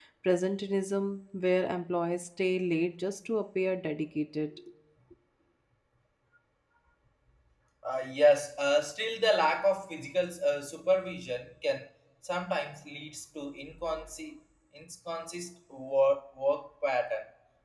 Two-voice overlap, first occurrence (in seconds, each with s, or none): none